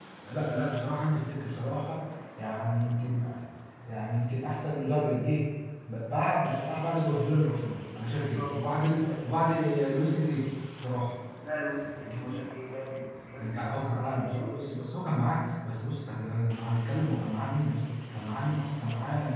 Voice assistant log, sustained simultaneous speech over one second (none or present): present